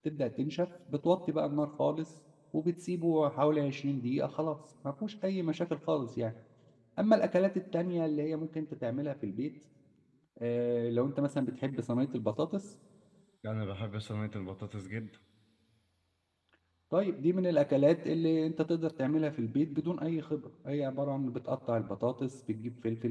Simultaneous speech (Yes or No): No